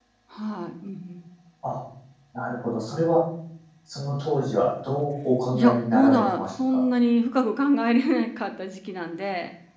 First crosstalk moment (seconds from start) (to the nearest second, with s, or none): 6 s